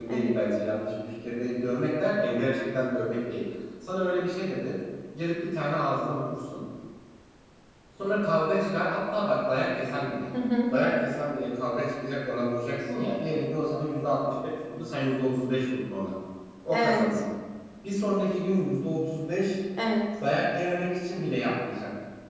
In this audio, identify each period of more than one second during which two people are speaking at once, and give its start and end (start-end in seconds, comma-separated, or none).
none